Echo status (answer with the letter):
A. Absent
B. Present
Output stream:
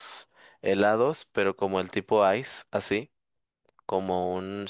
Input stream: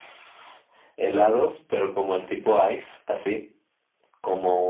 B